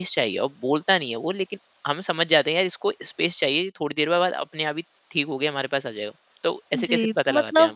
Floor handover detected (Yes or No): Yes